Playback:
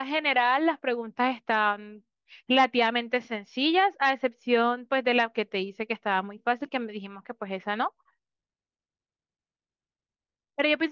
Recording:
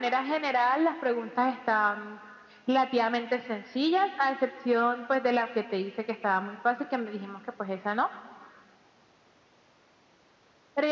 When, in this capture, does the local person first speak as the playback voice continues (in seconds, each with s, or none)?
none